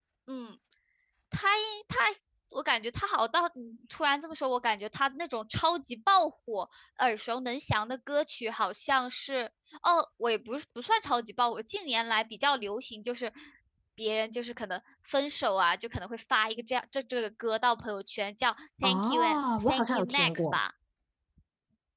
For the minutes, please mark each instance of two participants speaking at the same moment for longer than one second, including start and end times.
18.8-20.6

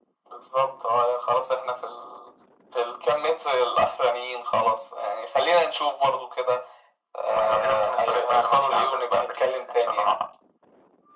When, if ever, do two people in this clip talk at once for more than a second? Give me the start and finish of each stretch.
7.3-10.1

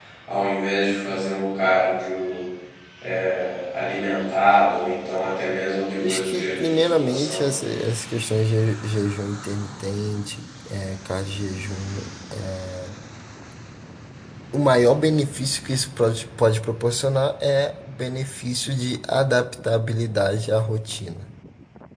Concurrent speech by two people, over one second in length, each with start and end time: 6.0-7.5

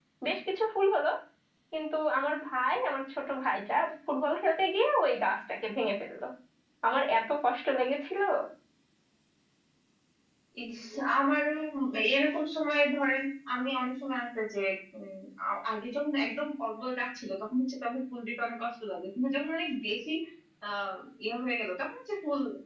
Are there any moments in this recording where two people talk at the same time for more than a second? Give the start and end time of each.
none

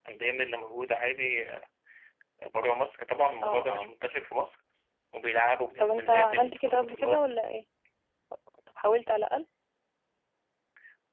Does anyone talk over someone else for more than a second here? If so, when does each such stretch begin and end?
5.8-7.2

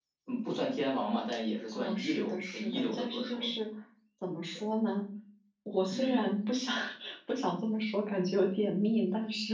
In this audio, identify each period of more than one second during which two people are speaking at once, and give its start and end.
1.7-3.5

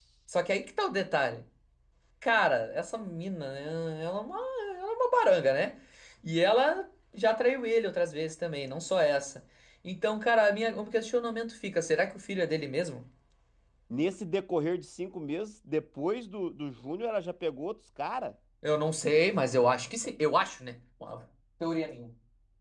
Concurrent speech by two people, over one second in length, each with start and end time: none

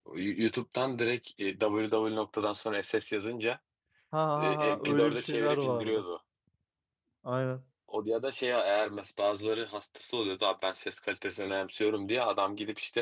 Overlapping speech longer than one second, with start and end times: 4.4-6.0

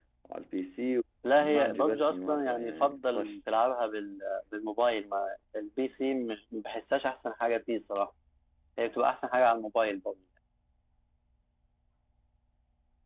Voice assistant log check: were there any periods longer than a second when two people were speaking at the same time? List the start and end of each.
1.4-3.3

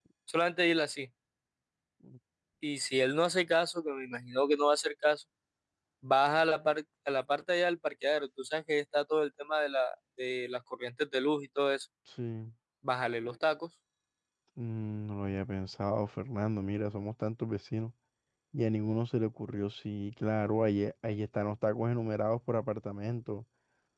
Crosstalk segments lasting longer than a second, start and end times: none

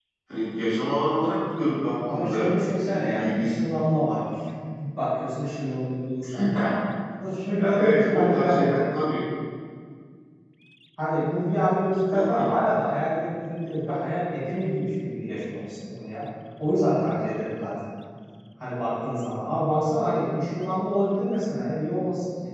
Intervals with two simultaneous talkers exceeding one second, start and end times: 2.1-3.6, 7.5-8.7

